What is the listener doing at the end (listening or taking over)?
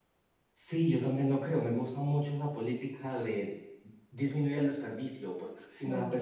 listening